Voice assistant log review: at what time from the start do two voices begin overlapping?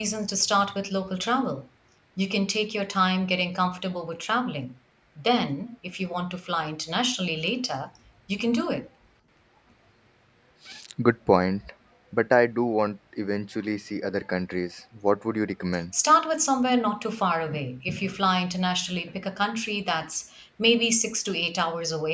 none

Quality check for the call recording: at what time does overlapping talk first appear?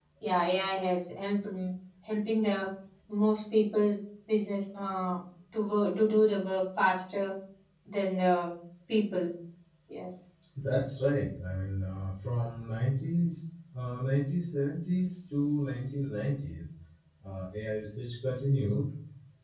none

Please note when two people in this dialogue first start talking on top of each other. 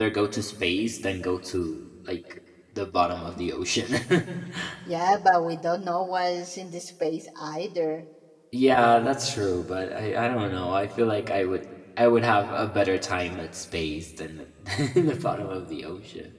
none

